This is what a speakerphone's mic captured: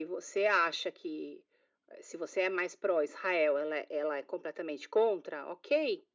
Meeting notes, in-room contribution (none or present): none